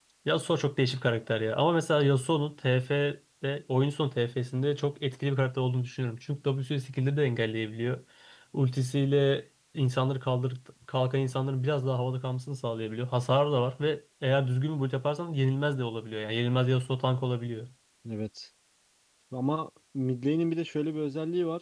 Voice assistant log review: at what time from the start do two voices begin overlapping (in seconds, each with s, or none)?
none